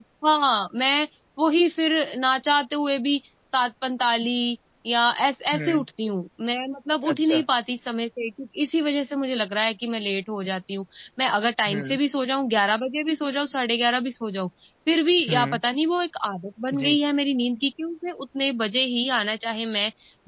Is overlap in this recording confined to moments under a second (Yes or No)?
Yes